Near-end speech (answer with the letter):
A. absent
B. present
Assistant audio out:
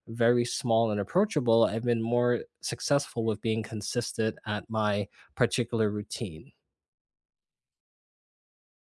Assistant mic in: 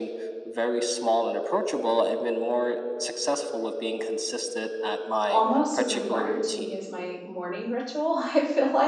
B